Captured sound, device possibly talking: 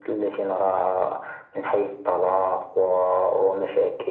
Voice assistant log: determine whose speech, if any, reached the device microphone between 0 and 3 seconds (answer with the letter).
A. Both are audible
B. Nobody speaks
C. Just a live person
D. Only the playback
D